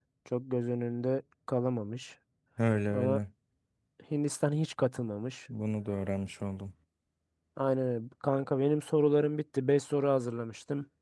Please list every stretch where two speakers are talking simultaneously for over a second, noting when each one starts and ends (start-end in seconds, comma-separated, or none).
none